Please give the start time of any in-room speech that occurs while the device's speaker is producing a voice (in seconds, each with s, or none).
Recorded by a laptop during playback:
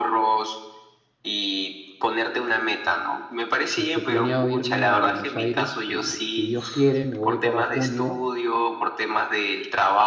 3.8 s